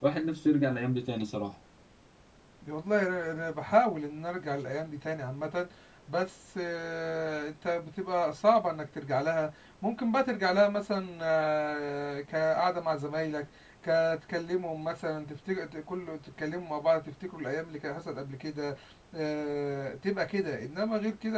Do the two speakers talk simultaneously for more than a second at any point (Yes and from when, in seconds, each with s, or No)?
No